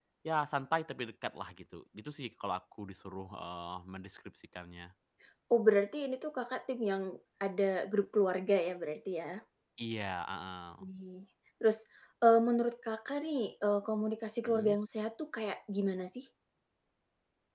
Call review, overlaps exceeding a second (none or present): none